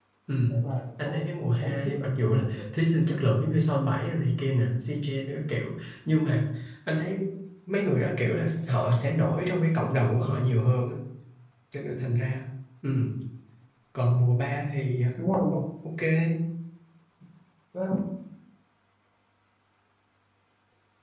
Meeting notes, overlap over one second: present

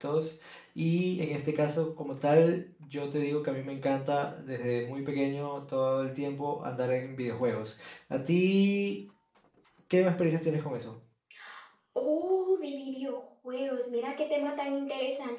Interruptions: none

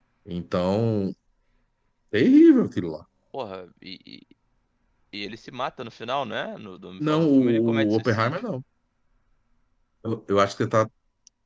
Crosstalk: present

